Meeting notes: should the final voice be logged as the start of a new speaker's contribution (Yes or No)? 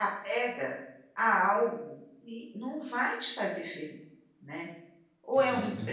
No